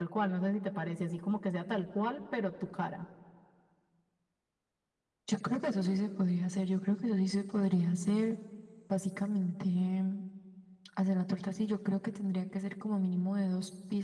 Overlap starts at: none

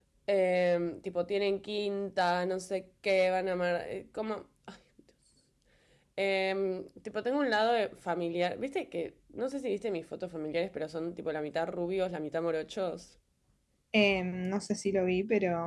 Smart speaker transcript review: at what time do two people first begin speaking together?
none

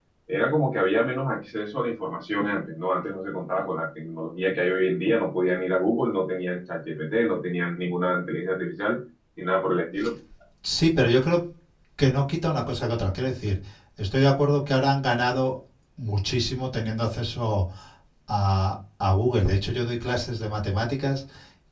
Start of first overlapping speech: none

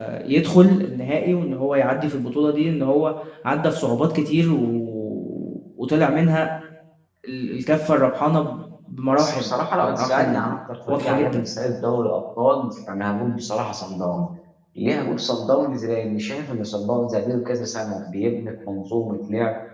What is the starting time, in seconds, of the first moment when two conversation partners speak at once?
9 s

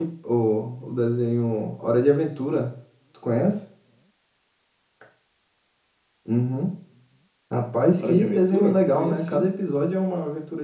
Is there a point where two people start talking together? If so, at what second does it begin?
8 s

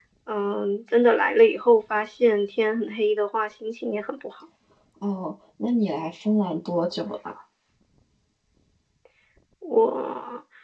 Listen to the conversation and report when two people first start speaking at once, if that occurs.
none

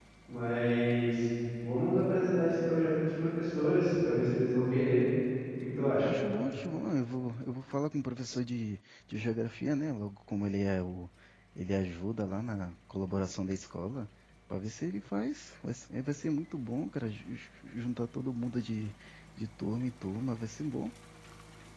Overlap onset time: none

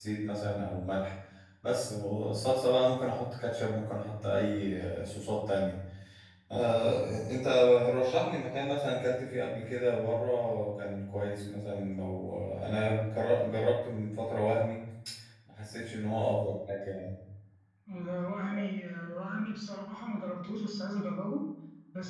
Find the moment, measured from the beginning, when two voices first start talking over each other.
none

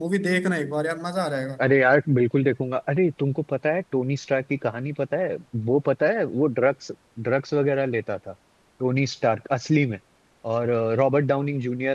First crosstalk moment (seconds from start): none

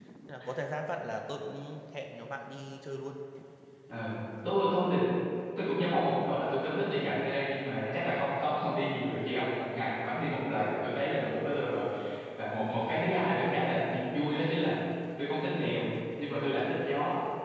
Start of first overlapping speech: none

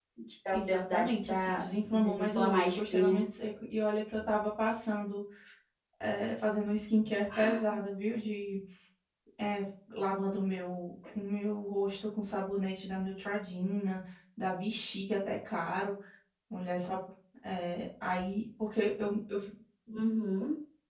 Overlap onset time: 1 s

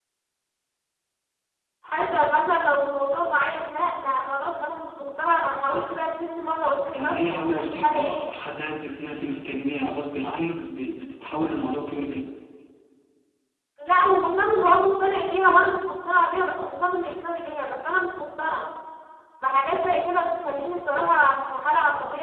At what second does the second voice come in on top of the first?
7 s

